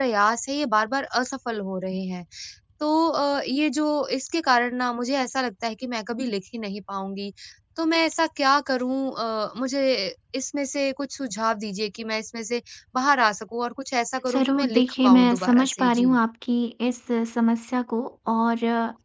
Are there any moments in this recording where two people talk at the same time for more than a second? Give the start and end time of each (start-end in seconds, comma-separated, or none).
14.3-16.2